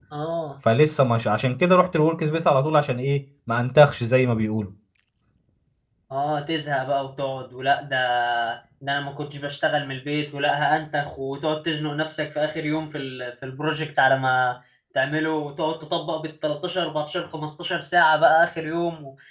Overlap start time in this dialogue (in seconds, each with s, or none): none